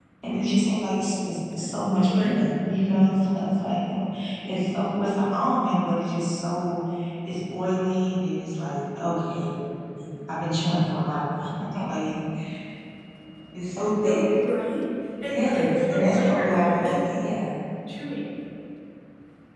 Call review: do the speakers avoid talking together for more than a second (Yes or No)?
No